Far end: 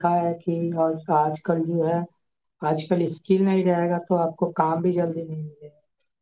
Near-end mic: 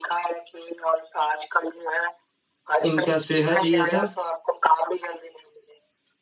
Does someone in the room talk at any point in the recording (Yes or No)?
Yes